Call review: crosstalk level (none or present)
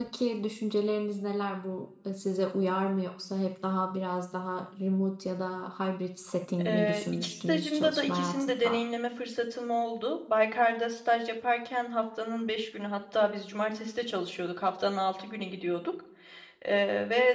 present